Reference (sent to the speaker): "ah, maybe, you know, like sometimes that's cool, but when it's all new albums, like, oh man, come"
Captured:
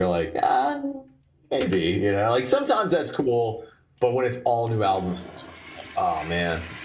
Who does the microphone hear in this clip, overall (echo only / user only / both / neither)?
echo only